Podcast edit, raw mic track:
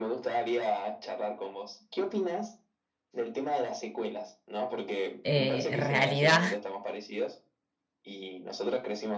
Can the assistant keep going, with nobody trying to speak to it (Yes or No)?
No